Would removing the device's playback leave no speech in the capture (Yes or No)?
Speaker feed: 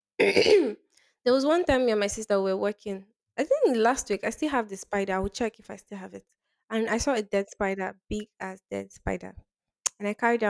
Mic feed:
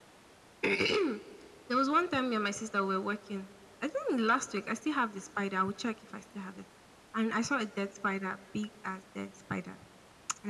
Yes